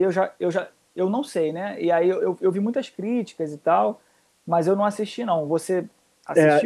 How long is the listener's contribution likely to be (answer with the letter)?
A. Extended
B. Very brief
A